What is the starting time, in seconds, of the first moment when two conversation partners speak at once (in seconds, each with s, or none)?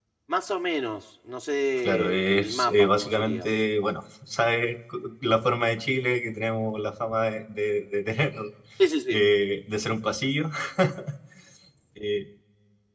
1.8 s